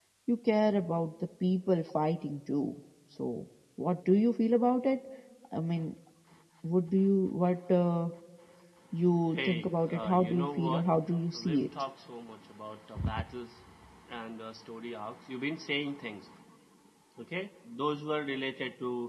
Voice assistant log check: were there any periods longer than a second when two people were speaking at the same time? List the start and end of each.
9.3-10.8

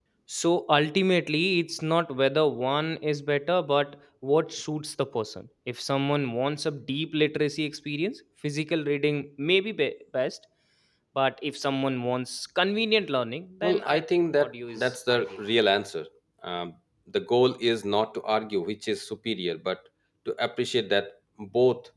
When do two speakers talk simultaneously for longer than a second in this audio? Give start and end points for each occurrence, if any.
13.6-15.4

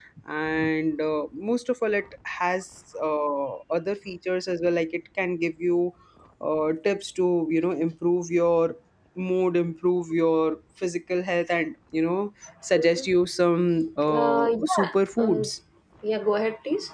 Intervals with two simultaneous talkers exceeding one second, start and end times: 14.1-15.4

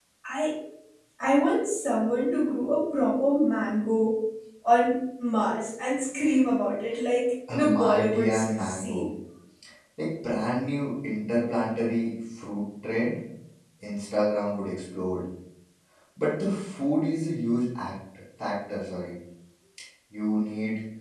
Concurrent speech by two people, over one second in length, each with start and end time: 7.5-9.0

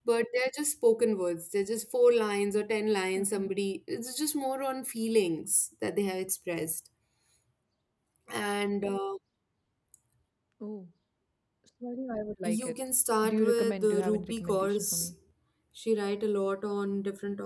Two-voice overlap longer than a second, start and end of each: 13.2-15.1

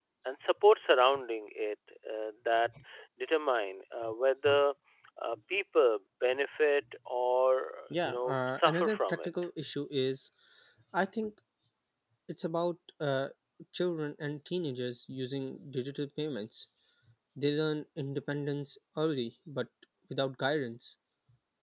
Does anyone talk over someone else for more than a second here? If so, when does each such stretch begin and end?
8.0-9.3

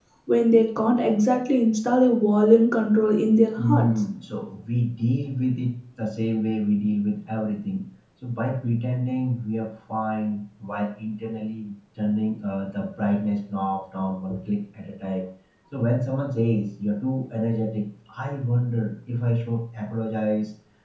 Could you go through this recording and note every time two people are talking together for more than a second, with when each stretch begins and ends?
none

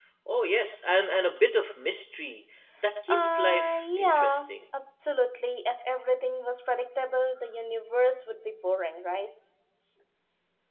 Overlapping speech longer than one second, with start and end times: 3.1-4.5

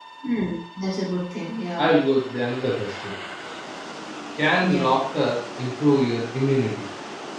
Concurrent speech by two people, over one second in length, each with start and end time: none

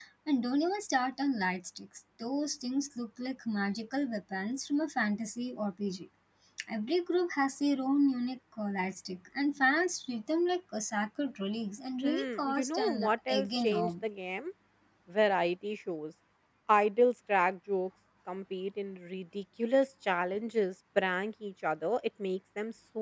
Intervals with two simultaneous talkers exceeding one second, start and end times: 12.0-14.0

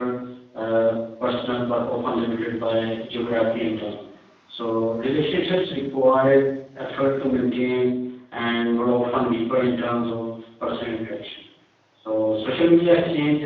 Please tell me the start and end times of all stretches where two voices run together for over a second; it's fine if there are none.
none

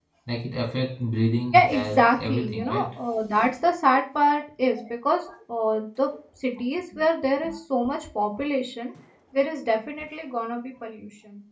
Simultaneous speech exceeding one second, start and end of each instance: 1.5-2.9

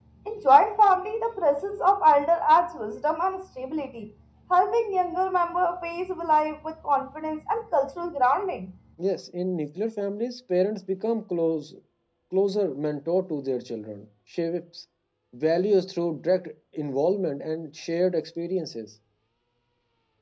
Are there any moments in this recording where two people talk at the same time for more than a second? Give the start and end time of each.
none

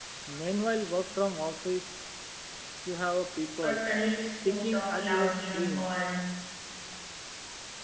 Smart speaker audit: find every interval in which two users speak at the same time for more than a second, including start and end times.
4.5-5.9

